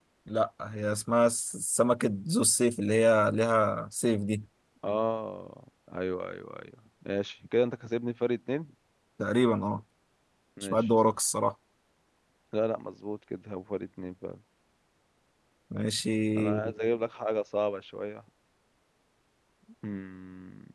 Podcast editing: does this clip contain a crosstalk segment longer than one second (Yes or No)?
No